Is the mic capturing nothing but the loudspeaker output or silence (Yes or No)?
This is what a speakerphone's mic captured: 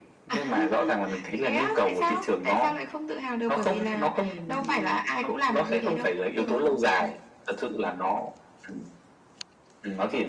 No